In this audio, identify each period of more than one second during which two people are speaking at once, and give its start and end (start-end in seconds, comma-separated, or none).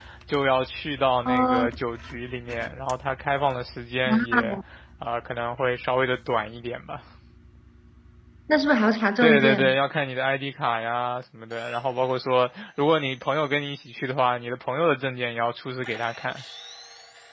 none